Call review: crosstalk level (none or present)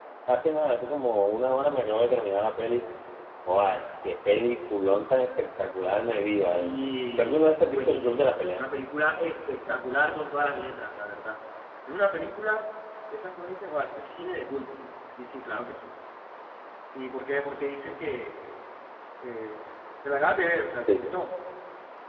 present